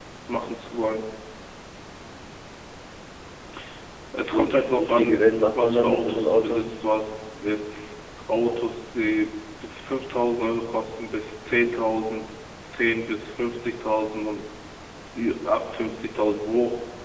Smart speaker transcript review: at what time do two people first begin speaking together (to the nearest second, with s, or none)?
4 s